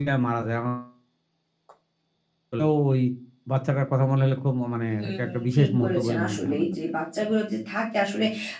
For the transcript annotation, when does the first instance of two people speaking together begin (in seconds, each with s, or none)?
5.0 s